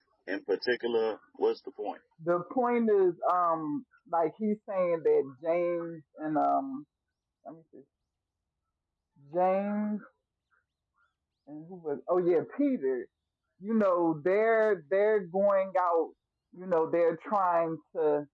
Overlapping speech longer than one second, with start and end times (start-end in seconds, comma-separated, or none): none